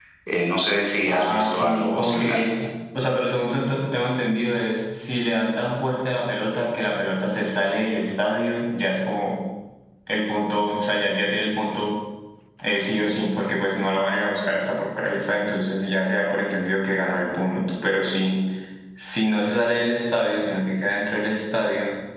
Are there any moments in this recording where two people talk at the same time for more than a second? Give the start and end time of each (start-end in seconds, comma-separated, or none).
1.1-2.4